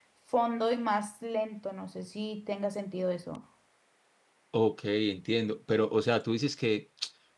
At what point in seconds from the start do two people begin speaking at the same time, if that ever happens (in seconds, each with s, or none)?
none